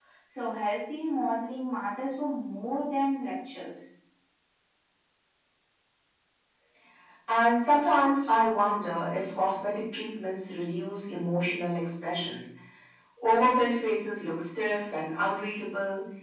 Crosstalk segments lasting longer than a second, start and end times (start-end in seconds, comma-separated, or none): none